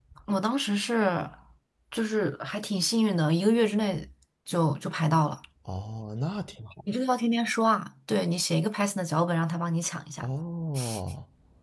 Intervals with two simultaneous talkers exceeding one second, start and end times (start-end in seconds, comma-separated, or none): none